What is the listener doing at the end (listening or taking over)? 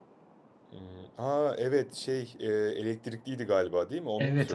taking over